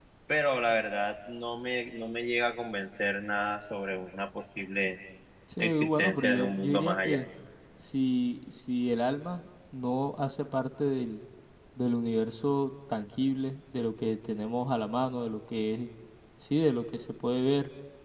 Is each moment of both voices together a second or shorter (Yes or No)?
No